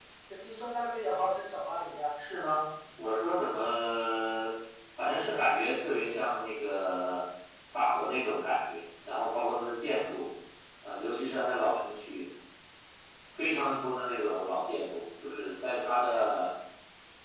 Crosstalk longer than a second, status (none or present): none